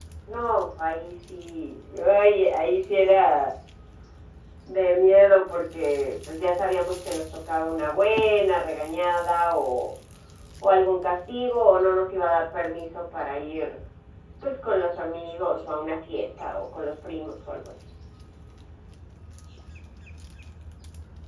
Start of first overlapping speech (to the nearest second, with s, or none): none